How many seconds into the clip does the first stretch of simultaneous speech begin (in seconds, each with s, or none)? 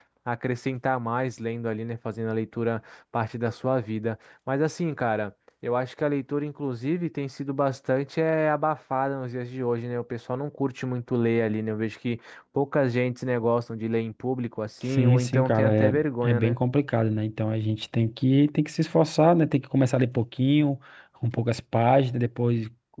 14.9 s